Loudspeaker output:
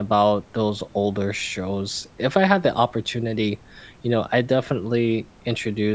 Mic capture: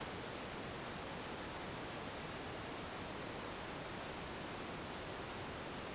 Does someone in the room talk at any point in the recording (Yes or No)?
No